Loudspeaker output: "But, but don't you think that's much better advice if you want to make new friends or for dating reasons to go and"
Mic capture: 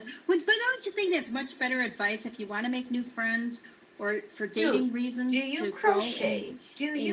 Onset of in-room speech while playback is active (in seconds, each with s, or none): 4.6 s